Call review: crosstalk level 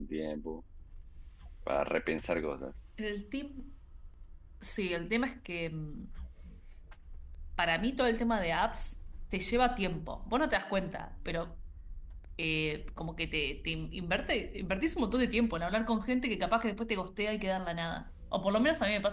none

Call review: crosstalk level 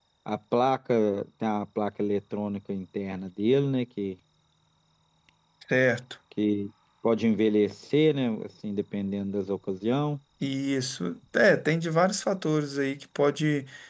none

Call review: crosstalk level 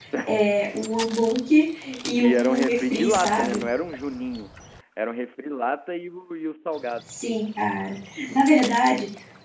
present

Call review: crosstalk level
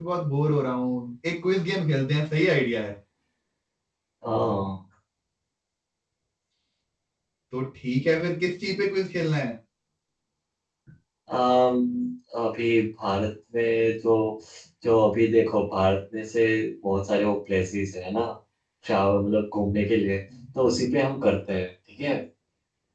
none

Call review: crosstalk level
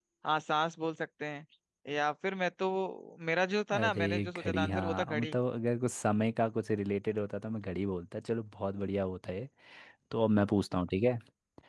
present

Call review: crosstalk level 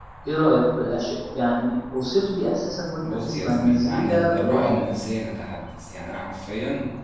present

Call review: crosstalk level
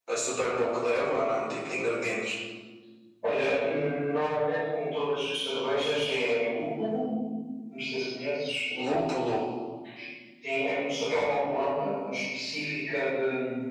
none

